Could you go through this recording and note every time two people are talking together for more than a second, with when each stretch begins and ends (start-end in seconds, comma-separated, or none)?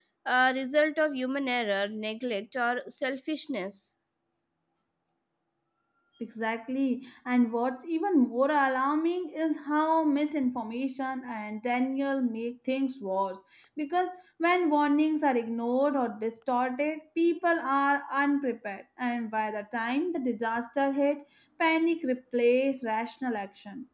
none